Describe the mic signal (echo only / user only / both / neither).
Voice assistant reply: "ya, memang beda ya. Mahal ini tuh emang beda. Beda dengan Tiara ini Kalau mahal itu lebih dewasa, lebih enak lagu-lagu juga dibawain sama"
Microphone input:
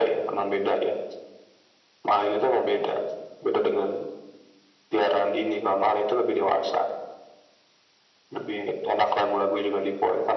echo only